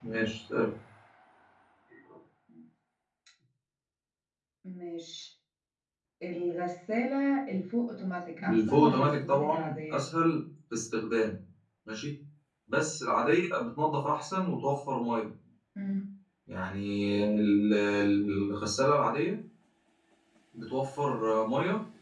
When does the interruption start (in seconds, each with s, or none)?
8.4 s